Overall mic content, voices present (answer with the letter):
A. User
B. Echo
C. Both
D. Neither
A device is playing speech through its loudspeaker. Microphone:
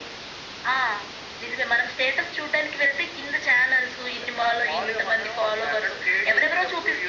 B